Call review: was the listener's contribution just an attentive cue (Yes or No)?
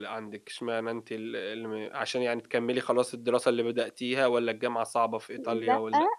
No